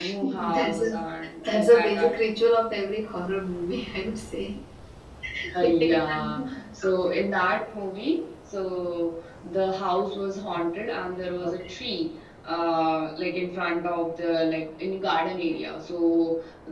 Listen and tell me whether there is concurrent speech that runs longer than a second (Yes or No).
Yes